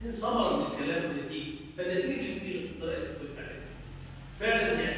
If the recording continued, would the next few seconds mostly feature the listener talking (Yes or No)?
Yes